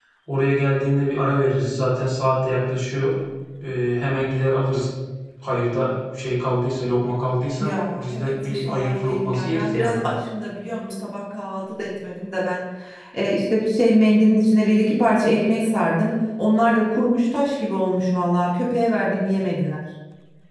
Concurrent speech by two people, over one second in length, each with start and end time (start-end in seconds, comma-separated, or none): 7.6-10.0